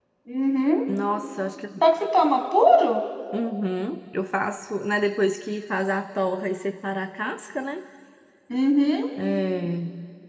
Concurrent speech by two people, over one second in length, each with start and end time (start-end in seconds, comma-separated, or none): none